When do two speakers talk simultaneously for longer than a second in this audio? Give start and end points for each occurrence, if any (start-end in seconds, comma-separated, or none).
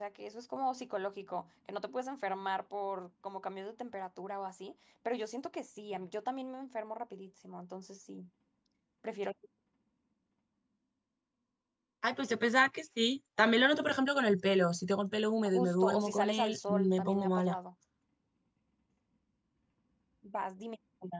15.5-17.6